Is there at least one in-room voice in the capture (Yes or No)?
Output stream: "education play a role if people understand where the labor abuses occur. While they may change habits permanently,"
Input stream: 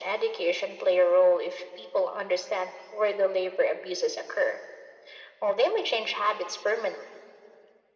No